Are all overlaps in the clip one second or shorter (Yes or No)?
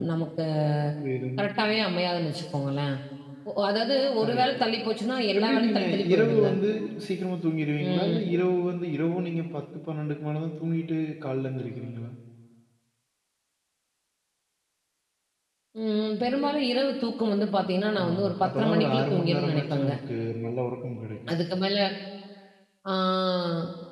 No